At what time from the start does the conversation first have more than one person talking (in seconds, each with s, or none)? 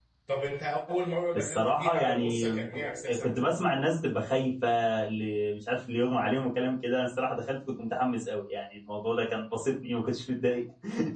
1.3 s